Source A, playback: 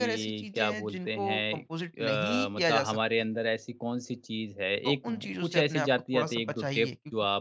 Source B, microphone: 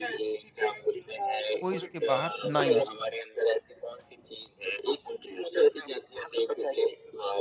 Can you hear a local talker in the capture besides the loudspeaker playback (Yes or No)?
Yes